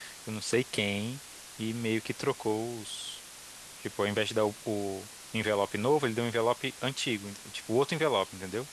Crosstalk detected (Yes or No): No